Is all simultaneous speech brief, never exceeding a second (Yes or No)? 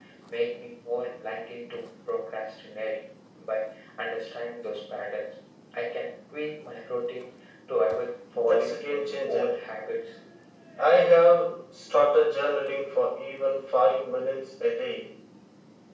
No